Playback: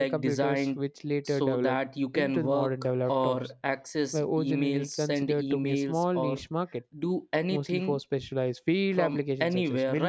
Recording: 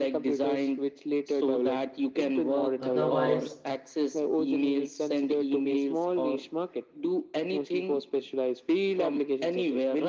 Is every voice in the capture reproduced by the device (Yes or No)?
No